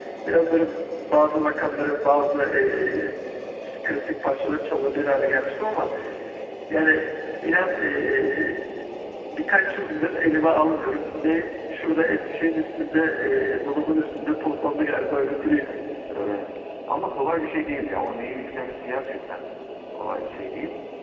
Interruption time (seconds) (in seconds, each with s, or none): none